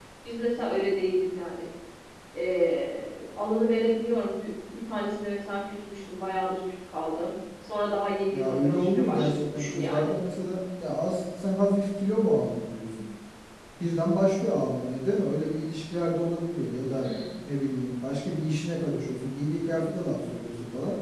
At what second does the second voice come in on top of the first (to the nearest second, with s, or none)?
8 s